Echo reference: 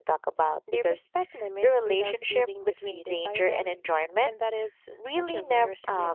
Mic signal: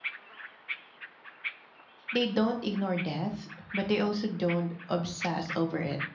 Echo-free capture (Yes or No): Yes